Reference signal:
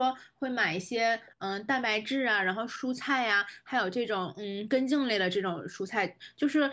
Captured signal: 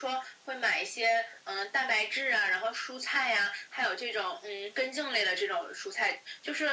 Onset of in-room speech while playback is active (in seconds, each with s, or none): none